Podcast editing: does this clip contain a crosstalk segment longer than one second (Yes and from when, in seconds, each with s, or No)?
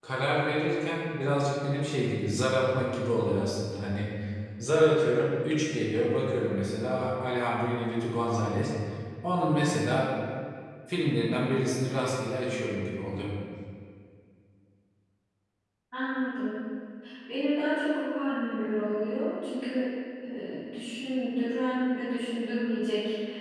No